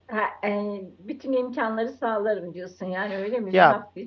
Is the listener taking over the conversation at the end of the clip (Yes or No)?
Yes